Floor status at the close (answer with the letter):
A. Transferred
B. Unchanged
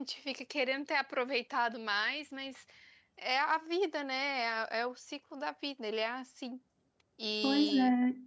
A